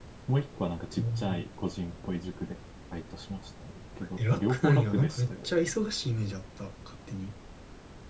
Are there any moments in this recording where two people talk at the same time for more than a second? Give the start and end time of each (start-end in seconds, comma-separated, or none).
4.2-5.5